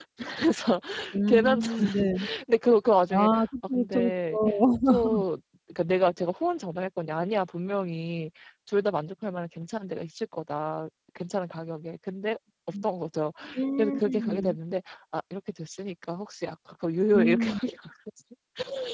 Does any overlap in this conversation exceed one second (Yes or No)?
Yes